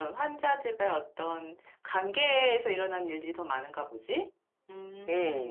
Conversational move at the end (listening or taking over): taking over